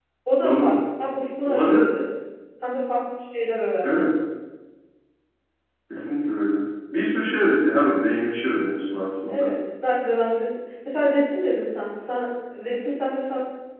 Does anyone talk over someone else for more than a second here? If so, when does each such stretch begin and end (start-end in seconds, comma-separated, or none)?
none